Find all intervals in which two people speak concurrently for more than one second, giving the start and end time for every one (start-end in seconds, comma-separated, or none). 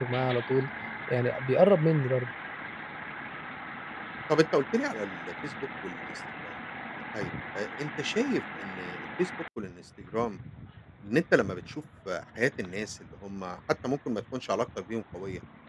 none